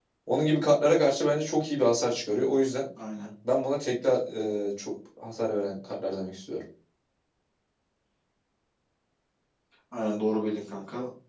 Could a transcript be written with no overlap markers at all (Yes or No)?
Yes